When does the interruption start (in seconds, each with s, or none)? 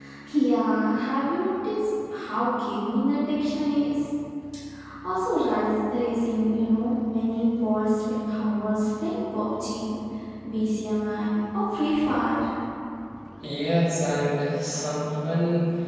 none